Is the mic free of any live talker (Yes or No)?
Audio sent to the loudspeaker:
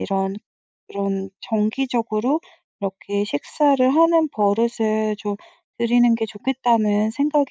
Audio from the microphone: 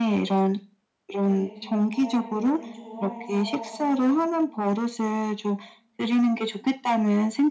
No